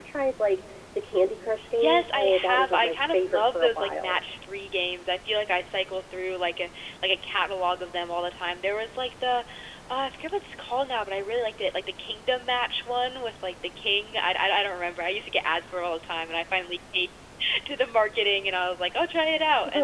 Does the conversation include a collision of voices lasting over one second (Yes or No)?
Yes